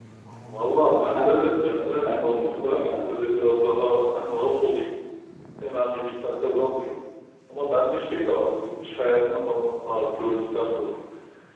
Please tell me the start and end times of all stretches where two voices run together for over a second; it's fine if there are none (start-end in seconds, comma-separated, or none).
0.7-3.0